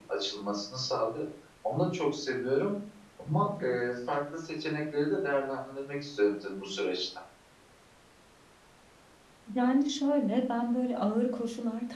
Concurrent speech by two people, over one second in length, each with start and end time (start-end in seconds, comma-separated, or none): none